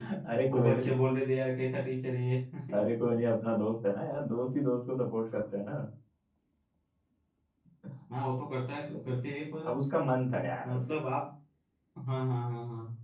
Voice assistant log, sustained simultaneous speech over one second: none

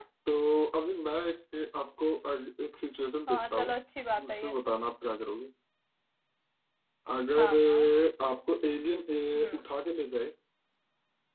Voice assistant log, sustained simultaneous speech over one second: none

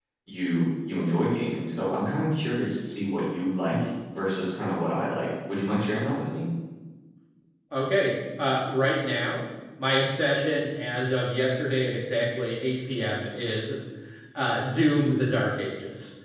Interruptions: none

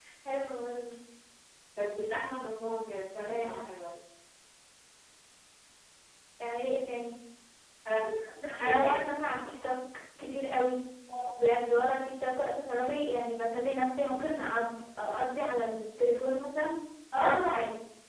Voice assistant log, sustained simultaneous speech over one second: none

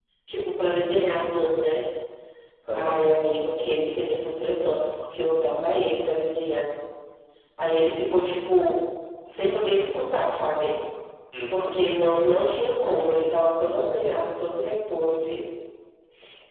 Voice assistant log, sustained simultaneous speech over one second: none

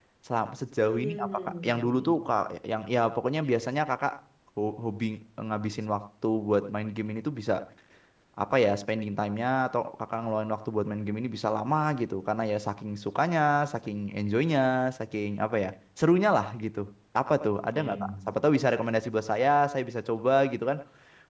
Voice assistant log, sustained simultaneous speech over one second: present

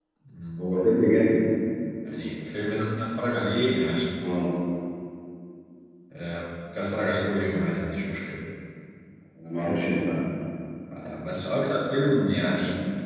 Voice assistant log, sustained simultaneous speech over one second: none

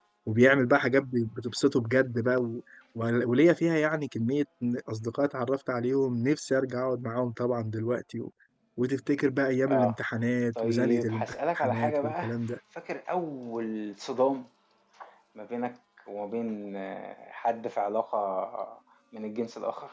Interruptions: present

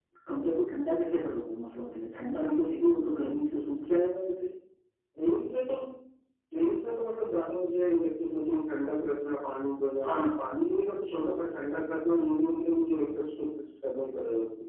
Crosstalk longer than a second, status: none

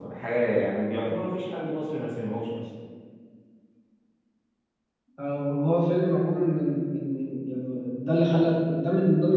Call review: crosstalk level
none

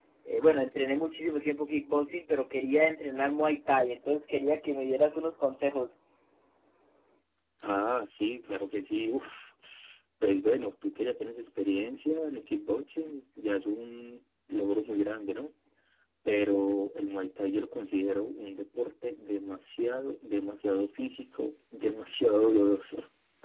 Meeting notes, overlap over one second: none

